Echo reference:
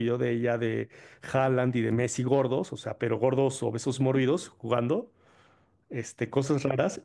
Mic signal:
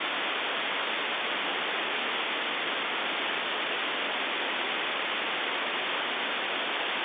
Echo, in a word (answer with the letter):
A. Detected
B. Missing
B